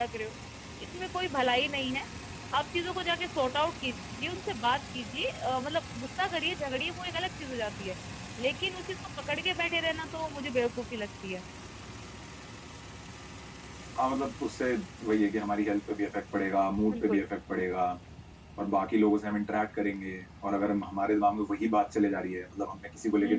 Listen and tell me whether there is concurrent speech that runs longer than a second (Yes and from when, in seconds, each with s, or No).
No